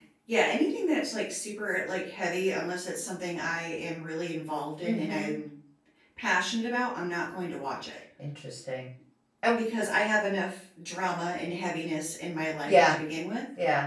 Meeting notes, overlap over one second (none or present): none